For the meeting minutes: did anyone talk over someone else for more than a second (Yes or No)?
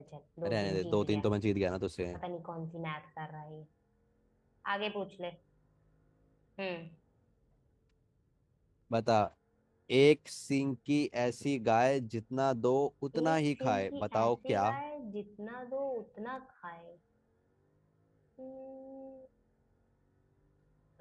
Yes